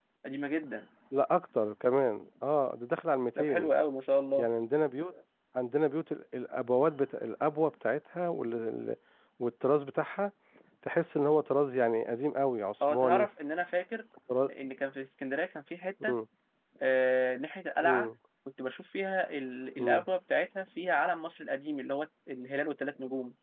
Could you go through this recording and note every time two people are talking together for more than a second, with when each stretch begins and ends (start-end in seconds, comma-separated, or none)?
none